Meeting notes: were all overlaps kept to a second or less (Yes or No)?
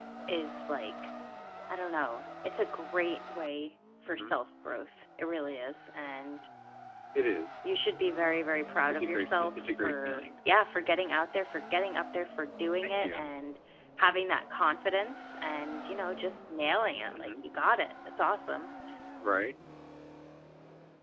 No